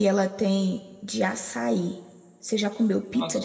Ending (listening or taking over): taking over